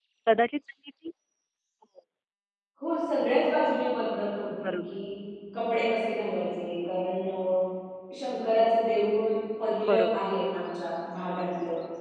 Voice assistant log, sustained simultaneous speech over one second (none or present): none